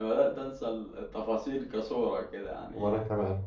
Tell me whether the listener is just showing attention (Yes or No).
Yes